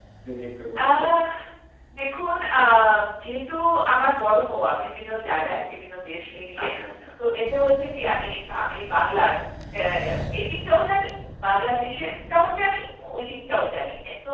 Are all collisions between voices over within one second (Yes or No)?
Yes